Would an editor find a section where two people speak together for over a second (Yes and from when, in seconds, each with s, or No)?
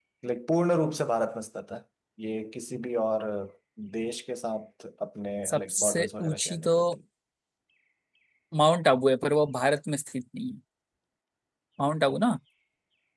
Yes, from 5.4 s